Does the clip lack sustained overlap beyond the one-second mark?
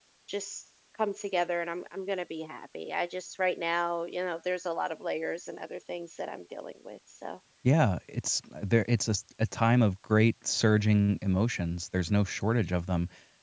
Yes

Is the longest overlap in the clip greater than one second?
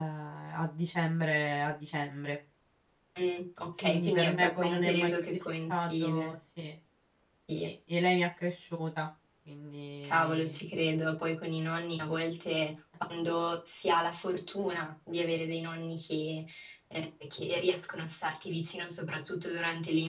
Yes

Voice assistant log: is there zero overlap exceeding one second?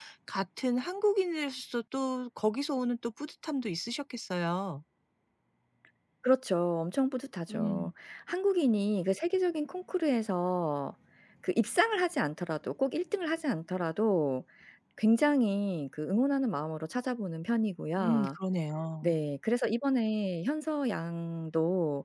Yes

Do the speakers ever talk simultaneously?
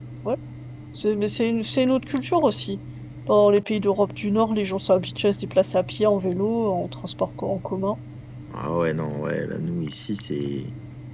No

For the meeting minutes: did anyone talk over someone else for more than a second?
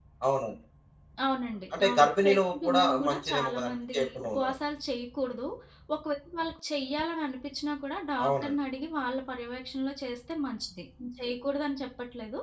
Yes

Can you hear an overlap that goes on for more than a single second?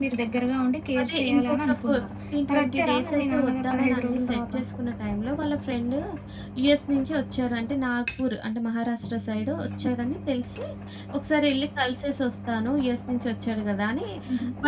Yes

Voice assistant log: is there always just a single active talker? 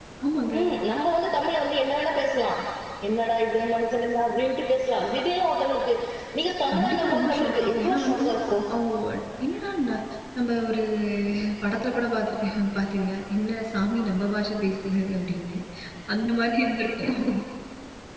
No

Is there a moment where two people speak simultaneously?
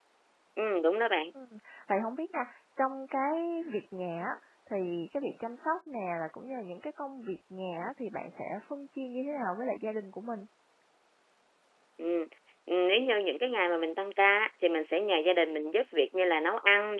No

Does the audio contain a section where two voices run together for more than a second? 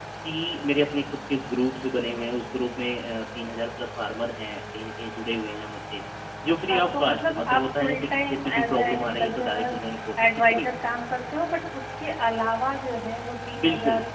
Yes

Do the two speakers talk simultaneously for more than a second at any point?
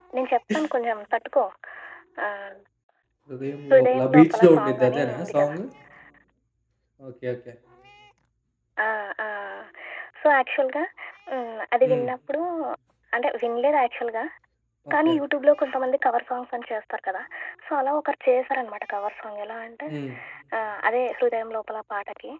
Yes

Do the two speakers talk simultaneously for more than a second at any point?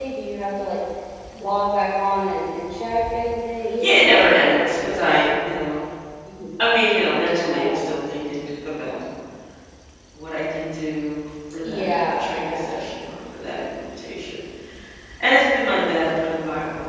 Yes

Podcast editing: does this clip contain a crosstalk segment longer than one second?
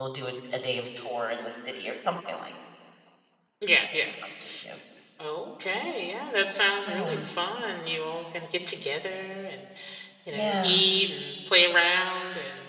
No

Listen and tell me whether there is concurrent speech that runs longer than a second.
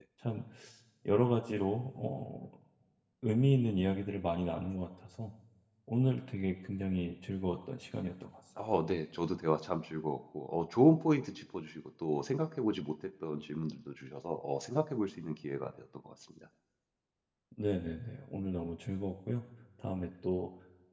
No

